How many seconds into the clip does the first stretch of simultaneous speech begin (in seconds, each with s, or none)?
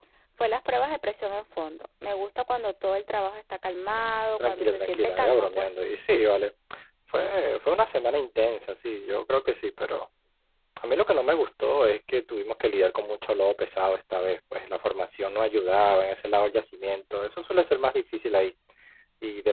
4.4 s